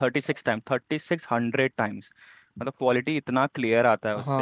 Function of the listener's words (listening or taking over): taking over